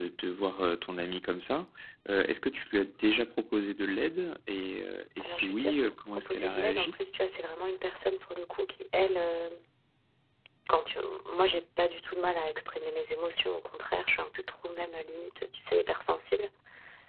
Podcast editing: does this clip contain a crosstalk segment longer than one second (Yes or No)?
Yes